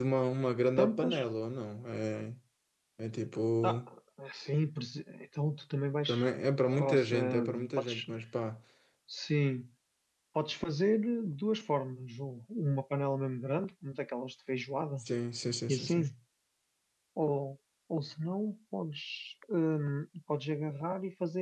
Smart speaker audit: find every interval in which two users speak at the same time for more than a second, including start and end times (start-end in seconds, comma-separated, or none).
6.7-8.1